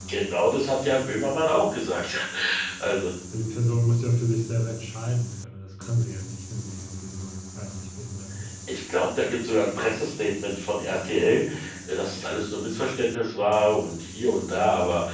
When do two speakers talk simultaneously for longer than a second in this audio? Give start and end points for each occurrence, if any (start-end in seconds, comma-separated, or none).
none